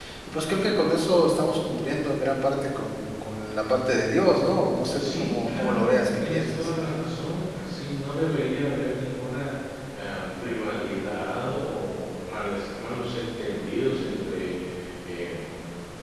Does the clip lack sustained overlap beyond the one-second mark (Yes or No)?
No